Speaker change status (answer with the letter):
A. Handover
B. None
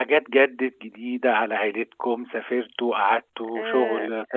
B